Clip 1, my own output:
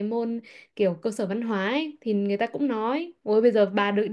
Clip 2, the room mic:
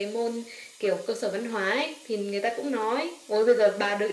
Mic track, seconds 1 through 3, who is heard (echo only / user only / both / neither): echo only